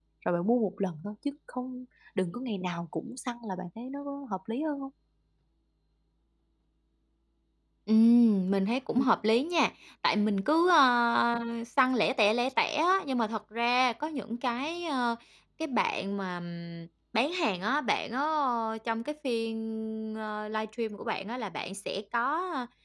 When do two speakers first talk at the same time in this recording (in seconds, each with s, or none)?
none